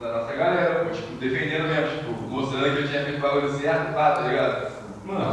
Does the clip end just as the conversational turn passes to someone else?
Yes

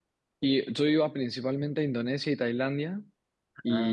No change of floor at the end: Yes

